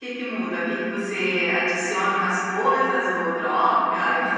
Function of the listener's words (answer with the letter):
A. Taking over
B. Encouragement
A